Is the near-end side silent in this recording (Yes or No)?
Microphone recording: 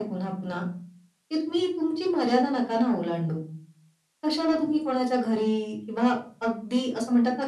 Yes